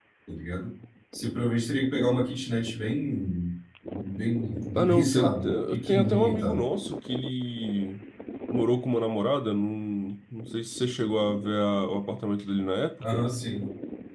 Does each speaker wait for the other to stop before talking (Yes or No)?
No